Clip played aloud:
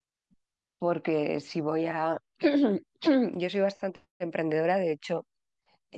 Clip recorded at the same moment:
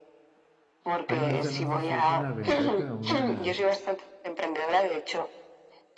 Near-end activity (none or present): present